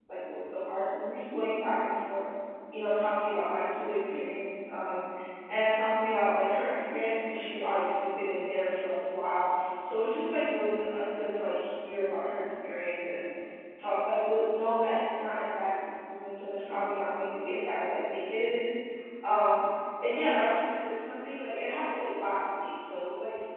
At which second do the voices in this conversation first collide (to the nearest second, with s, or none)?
none